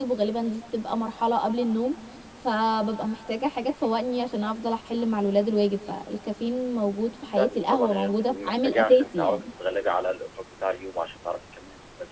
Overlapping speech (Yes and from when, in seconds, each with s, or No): Yes, from 7.4 s